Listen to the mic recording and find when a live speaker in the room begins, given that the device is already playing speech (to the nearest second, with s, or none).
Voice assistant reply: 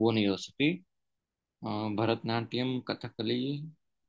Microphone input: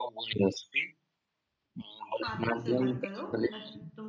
2 s